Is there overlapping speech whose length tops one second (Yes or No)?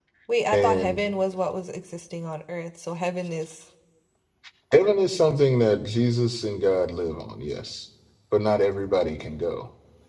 No